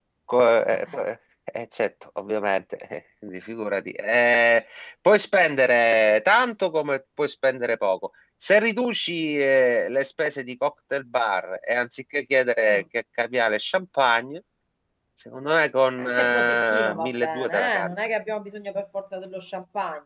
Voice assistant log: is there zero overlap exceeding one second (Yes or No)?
No